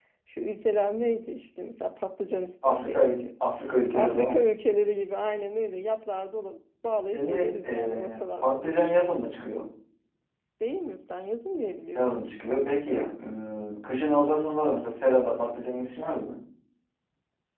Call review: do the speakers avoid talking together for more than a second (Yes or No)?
No